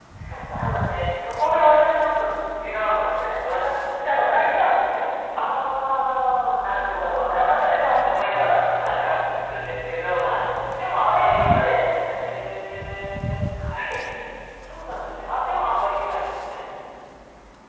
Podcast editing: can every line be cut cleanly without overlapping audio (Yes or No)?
No